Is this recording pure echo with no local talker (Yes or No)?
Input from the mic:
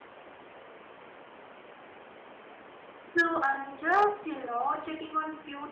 No